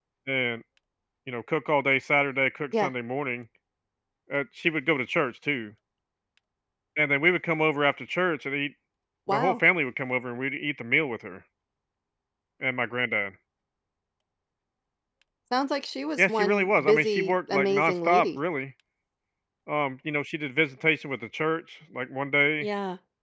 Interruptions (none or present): present